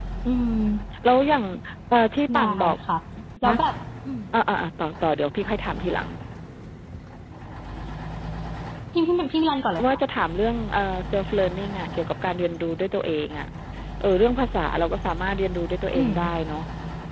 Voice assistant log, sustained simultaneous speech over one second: none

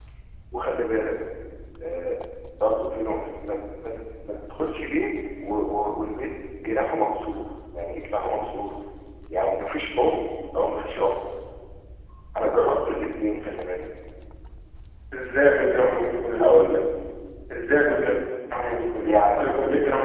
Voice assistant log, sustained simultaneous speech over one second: none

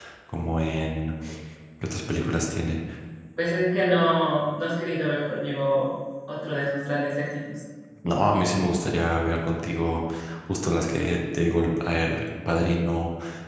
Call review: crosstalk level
none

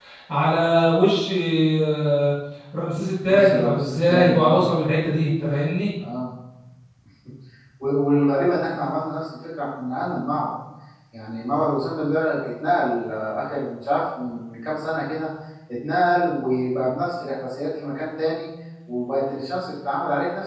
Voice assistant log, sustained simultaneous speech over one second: present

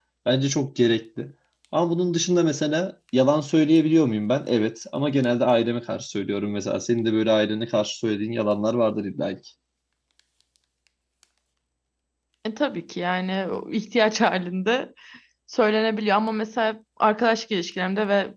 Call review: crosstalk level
none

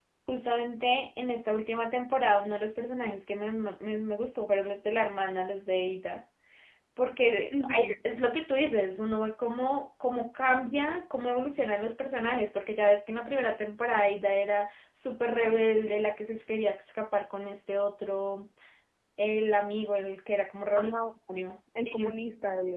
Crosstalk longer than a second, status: none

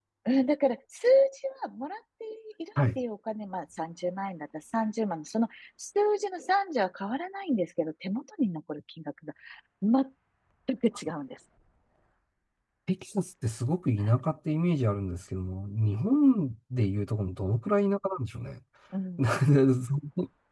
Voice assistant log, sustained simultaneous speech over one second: none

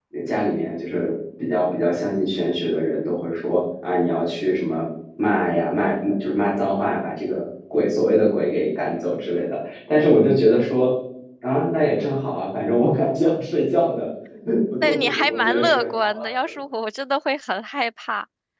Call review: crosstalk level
present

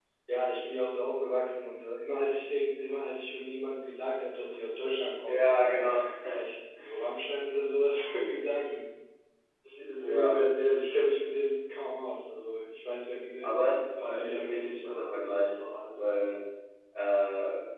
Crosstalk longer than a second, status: present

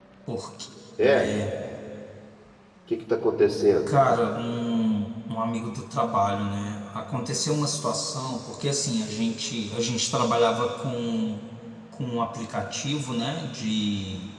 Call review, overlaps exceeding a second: none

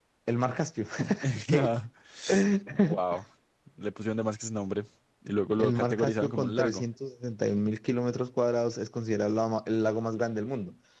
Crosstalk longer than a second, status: present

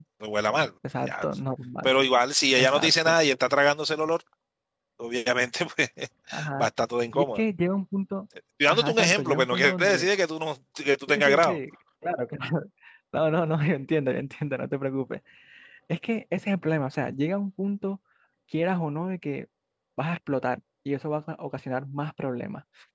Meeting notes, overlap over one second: present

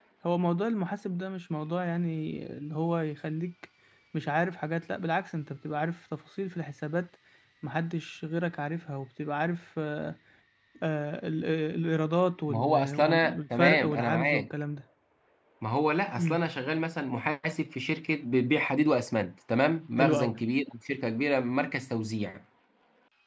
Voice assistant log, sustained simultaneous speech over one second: present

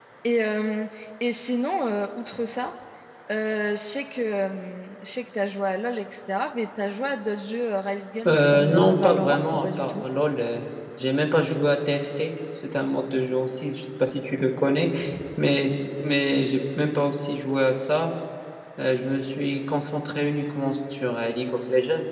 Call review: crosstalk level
present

